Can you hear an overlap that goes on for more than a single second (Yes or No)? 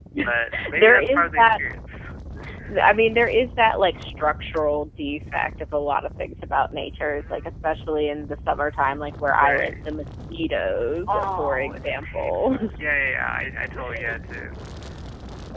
Yes